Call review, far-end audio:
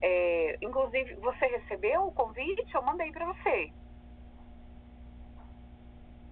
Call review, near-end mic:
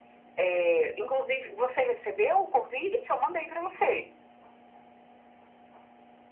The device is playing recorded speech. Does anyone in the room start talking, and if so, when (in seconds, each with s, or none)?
none